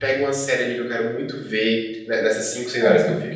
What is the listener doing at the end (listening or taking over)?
listening